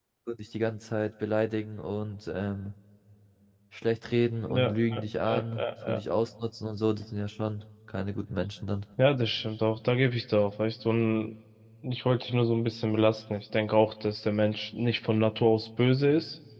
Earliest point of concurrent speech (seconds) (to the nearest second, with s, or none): 5 s